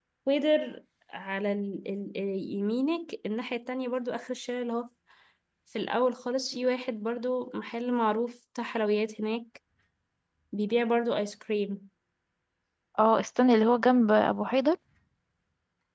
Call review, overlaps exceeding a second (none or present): none